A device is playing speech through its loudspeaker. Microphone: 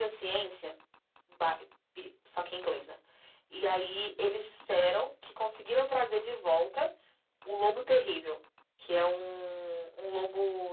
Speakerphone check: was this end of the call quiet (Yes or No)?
Yes